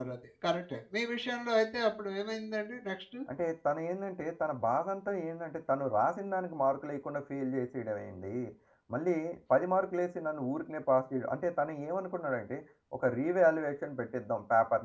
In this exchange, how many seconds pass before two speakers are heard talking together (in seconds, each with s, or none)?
none